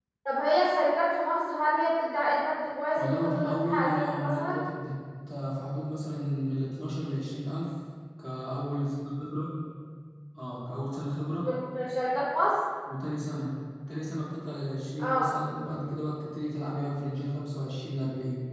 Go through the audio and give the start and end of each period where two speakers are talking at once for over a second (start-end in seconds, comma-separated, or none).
3.0-4.6